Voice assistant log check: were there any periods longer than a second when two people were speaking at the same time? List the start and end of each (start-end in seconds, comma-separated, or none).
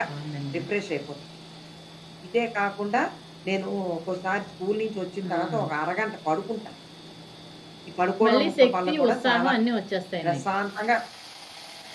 8.2-9.5